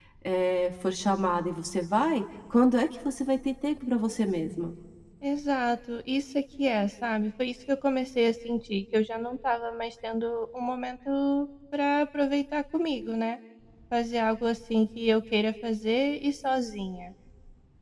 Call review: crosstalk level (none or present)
none